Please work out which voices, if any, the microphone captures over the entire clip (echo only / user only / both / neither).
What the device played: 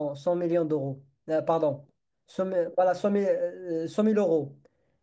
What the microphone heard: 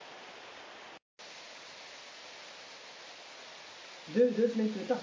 user only